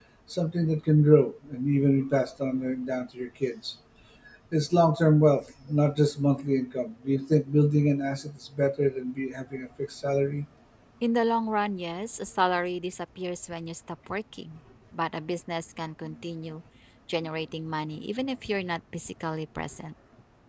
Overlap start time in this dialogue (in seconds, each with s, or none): none